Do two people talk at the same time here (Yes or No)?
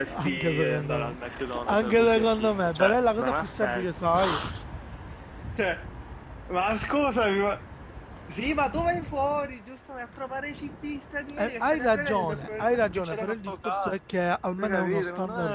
Yes